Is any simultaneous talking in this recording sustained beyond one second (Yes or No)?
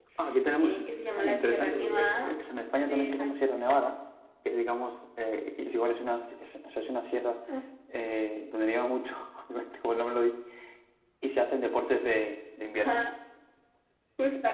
Yes